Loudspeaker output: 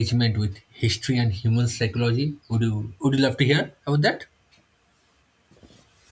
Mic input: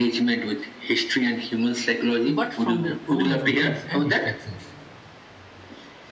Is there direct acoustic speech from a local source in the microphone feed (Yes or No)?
Yes